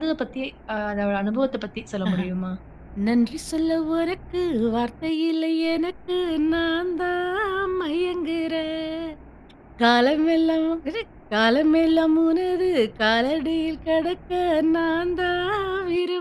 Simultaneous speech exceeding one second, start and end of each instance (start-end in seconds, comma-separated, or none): none